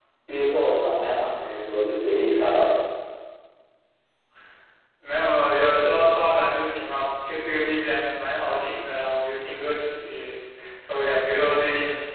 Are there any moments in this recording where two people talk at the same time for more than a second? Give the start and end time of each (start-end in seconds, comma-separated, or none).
none